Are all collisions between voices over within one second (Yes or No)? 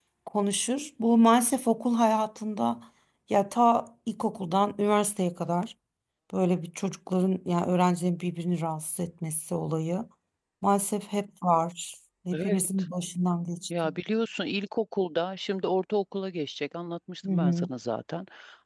Yes